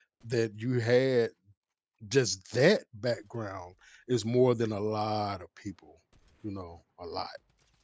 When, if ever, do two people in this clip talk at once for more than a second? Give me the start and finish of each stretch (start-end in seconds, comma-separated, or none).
none